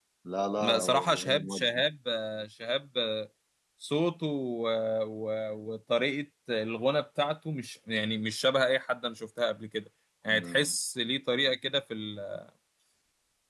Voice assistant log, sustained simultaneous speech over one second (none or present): present